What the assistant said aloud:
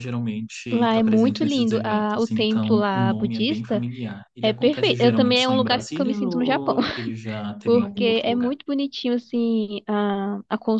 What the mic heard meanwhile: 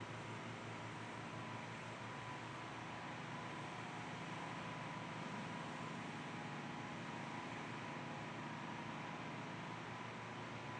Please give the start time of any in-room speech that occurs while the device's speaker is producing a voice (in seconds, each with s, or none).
none